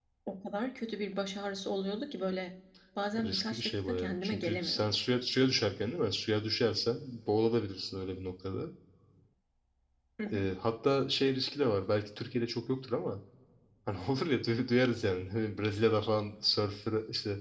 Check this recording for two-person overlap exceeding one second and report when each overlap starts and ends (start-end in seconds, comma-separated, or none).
3.1-4.9